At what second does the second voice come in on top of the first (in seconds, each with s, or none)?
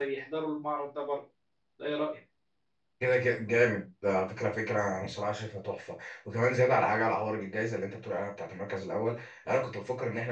none